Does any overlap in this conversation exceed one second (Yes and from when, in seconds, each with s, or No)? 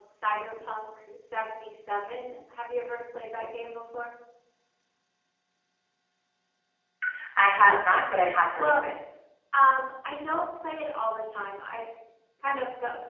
No